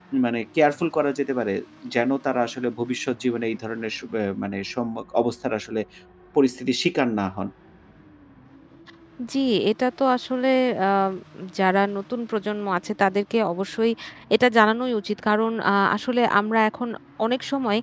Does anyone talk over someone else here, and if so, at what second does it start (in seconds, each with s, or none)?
none